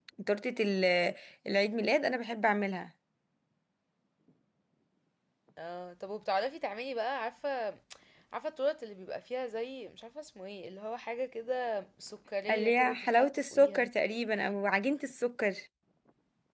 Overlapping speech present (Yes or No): Yes